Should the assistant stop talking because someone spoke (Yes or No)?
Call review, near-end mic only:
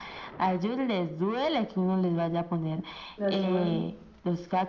Yes